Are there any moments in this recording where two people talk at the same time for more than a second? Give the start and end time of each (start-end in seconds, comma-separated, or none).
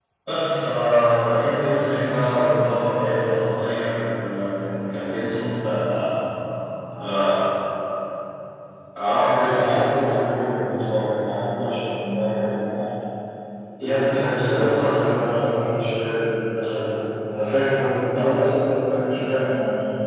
13.8-15.0